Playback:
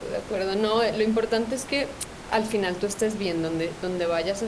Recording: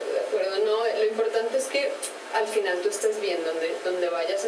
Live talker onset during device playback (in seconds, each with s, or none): none